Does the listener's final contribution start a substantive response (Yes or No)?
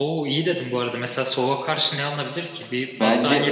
Yes